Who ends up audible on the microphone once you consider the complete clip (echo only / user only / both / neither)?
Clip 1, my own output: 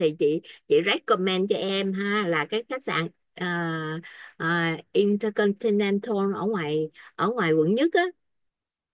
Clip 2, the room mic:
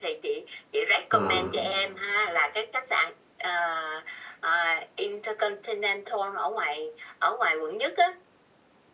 both